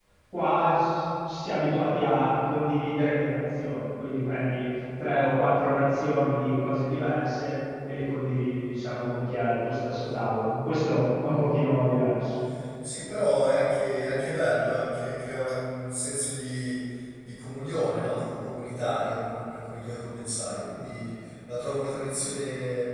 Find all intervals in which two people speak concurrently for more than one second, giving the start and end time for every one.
none

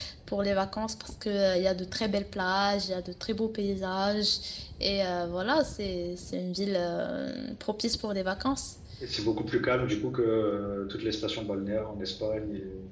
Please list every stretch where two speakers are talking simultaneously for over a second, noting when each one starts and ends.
none

